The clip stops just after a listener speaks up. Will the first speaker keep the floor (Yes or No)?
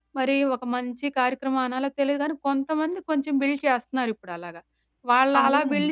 Yes